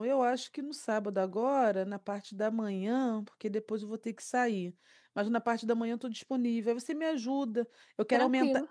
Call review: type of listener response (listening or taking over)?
listening